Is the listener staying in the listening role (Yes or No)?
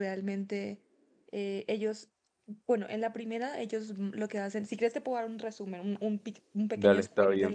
No